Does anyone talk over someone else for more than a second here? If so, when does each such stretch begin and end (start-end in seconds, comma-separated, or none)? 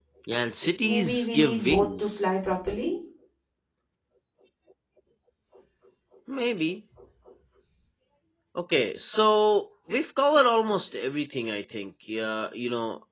0.8-2.3